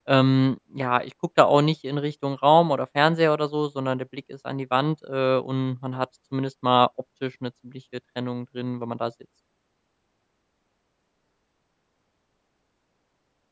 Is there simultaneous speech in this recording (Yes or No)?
No